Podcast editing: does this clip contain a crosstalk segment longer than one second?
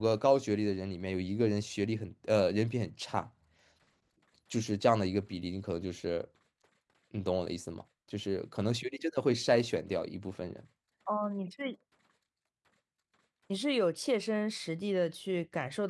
No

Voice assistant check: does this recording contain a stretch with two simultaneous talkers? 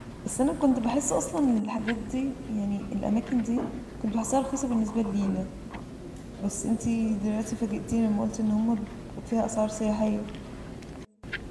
No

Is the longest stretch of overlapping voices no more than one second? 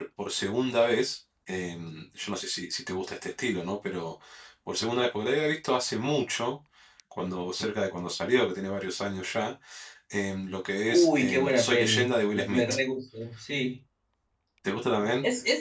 No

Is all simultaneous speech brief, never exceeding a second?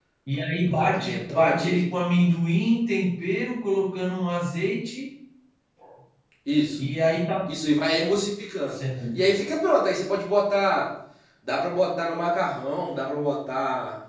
No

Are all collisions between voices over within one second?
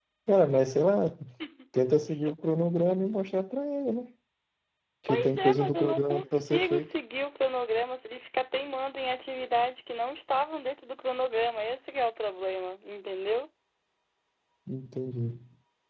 No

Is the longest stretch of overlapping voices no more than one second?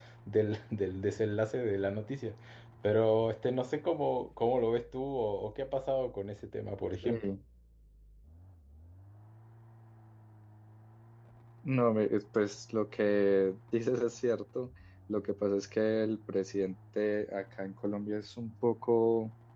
Yes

